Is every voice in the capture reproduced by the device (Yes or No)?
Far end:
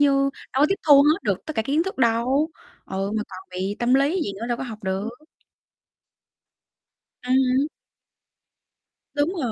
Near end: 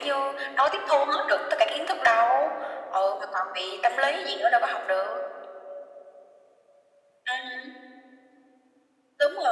Yes